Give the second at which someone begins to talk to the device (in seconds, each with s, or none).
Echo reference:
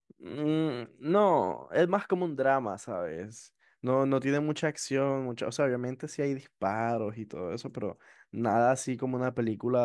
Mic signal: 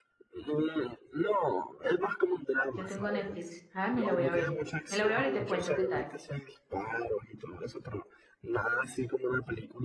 2.7 s